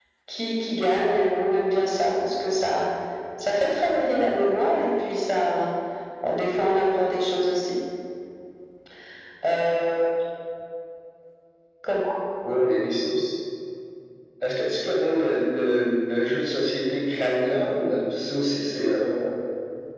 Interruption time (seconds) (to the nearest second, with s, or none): none